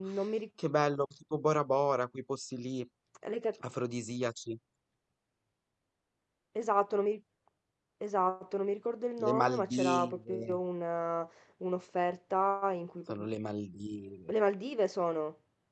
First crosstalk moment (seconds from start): 9.2 s

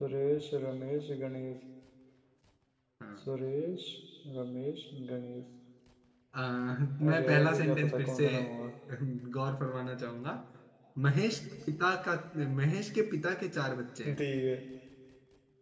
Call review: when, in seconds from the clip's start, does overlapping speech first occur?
7.0 s

